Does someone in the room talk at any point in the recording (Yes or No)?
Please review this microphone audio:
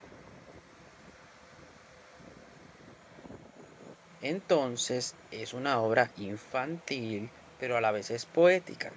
Yes